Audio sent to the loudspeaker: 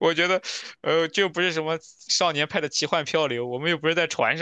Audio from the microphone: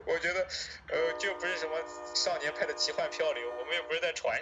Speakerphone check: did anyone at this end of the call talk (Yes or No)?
No